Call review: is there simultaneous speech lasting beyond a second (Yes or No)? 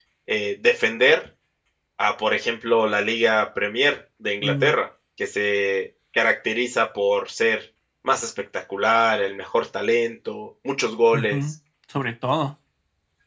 No